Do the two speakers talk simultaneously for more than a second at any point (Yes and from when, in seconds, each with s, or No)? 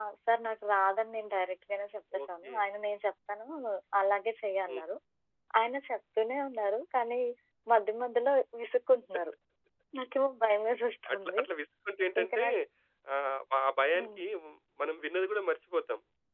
No